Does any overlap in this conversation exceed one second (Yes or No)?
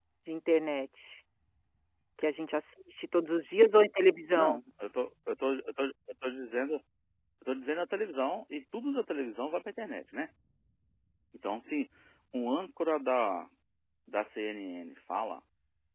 No